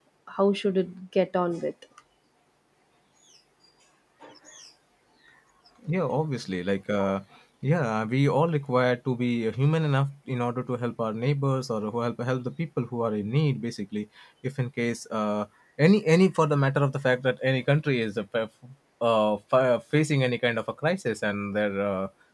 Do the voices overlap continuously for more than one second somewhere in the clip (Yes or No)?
No